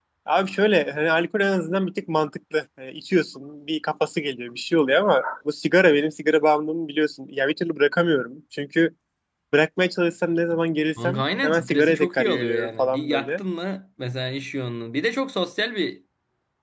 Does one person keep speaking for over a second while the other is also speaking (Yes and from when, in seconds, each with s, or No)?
Yes, from 11.0 s